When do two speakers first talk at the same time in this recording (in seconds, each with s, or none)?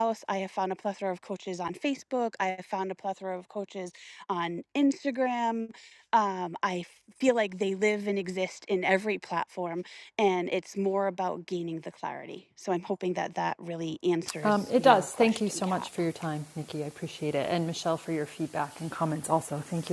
14.4 s